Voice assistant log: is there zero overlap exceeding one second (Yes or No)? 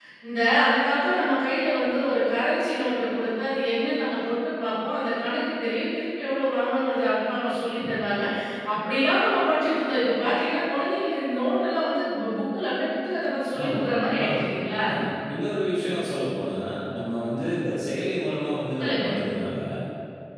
Yes